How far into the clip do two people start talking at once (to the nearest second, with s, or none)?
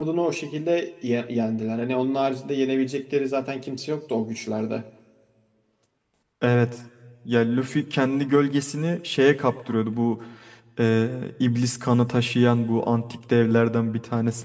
none